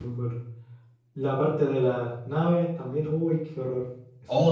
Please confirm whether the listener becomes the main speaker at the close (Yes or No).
Yes